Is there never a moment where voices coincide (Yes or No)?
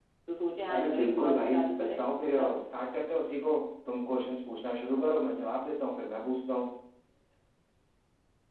No